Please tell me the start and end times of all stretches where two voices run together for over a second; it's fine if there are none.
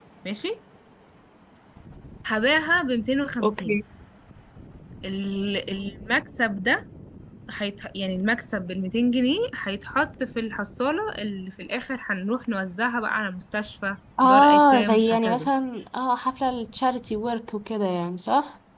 14.2-15.5

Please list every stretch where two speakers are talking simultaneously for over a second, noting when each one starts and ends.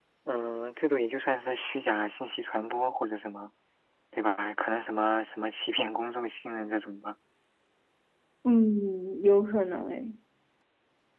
none

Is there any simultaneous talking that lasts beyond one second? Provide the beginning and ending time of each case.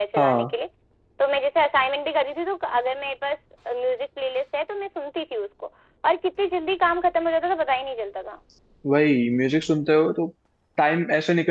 none

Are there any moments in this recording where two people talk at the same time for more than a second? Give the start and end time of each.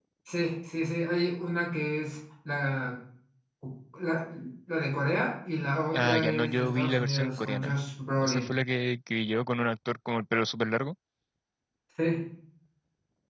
5.9-7.8

